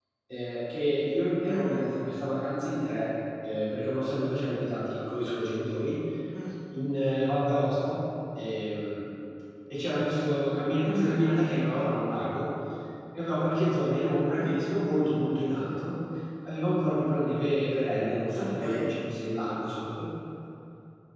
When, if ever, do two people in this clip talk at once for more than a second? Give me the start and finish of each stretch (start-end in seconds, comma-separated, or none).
none